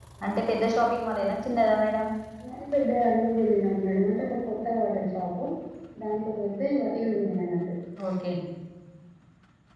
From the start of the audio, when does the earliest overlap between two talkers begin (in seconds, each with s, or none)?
none